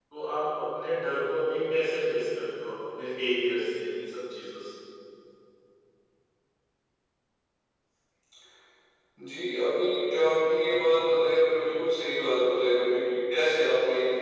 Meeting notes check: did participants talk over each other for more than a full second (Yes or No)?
No